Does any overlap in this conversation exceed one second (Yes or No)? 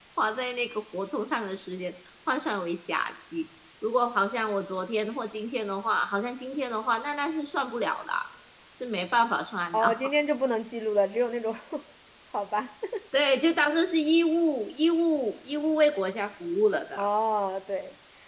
No